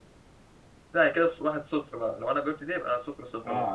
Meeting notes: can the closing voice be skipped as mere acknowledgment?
No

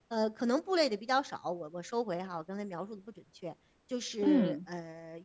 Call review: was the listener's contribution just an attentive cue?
Yes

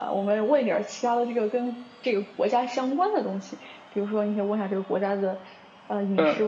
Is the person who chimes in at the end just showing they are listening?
Yes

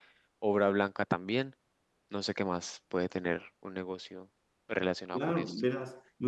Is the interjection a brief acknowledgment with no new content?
No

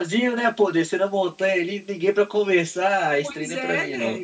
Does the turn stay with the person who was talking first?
No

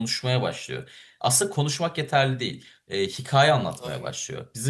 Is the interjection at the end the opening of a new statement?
No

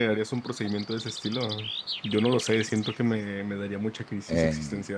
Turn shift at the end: Yes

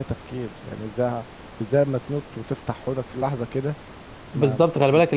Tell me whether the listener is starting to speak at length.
Yes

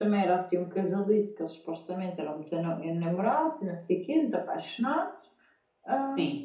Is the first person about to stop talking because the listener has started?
No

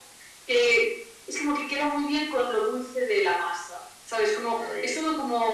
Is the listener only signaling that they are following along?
Yes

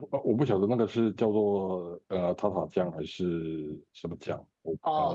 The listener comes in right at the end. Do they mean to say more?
Yes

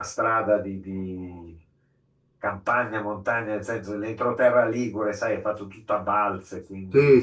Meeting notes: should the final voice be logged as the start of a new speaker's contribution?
Yes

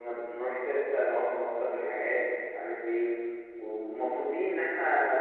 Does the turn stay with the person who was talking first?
Yes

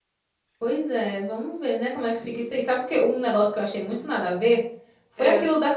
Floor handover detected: No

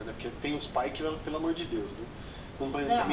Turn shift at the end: No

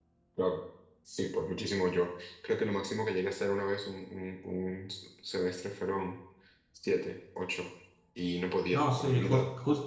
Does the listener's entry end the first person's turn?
Yes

